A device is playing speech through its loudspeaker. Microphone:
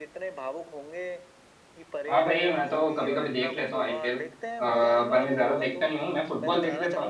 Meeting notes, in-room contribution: present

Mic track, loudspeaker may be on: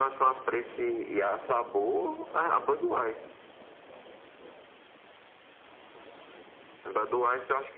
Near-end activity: none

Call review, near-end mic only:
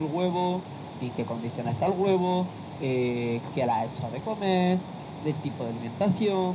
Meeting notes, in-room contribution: none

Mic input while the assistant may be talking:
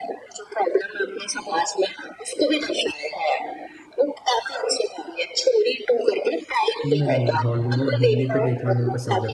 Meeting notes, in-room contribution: present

